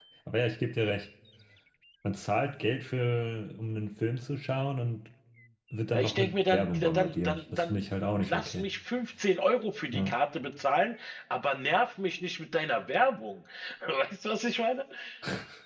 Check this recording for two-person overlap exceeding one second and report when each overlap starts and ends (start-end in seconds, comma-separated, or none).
5.9-7.8